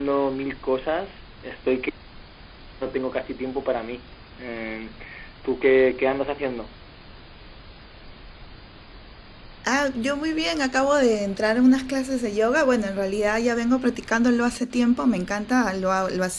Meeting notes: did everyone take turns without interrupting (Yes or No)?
Yes